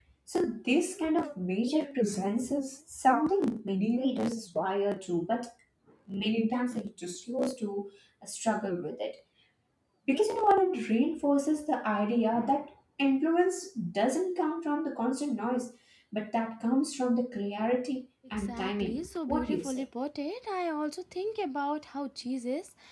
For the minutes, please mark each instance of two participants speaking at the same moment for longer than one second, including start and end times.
18.4-19.8

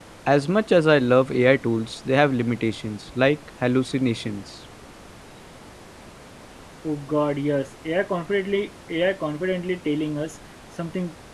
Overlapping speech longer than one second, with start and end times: none

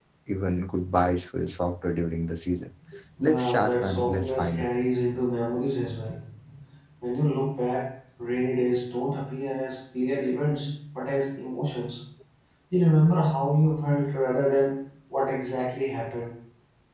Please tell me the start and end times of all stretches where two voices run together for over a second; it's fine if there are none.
3.2-4.7

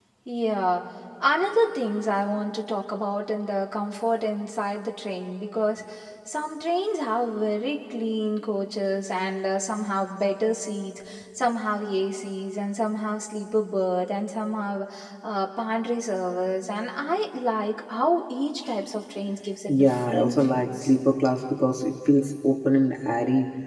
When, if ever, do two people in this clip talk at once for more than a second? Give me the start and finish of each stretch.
19.7-20.9

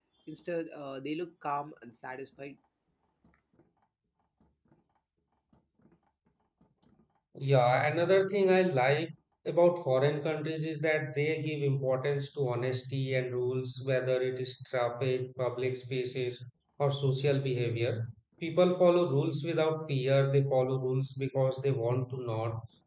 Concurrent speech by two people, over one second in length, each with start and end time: none

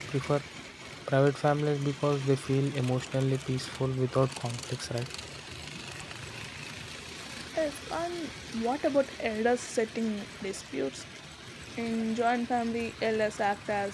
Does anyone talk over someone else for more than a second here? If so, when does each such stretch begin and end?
none

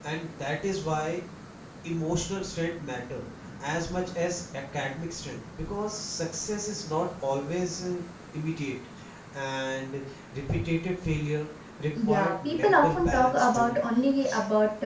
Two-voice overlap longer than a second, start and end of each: 12.0-13.7

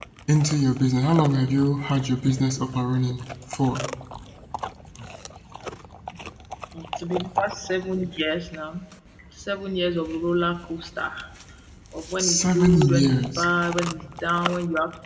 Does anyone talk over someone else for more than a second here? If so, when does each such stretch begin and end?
12.2-13.4

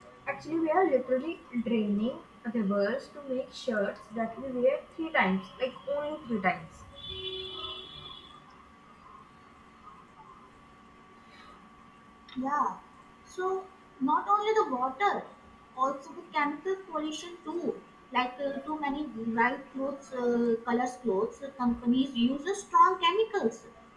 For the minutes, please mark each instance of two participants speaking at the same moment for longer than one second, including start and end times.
none

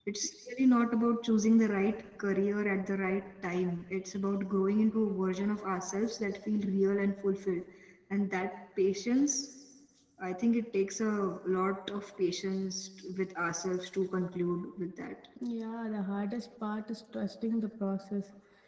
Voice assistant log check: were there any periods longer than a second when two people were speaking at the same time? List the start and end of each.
none

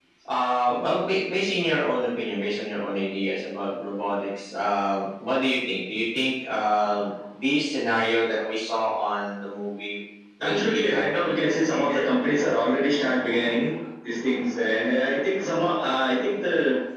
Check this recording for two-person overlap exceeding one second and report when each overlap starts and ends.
10.4-12.1

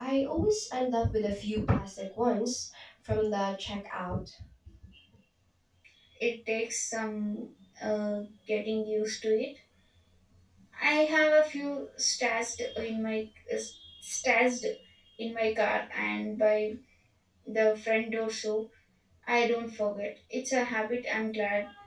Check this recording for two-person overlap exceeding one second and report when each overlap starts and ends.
none

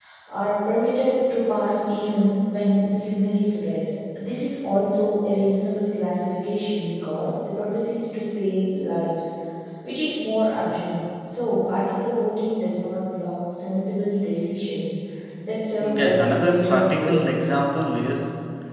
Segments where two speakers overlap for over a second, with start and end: 15.8-17.1

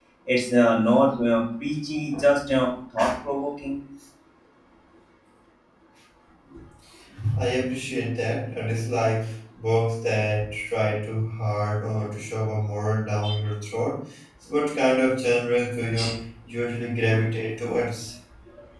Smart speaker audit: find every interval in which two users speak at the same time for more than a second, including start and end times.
none

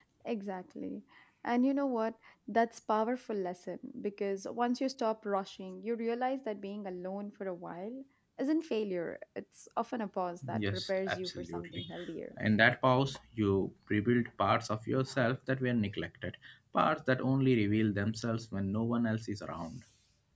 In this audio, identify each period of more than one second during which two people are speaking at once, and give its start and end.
10.5-11.8

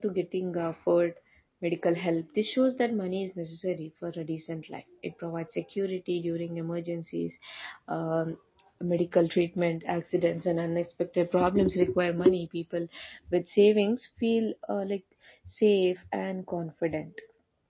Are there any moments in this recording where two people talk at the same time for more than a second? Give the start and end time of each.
none

